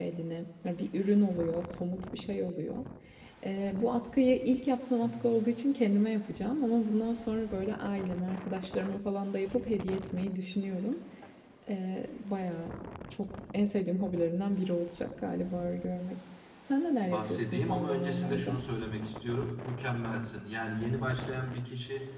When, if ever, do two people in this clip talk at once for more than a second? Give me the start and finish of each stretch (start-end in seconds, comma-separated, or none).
17.0-18.6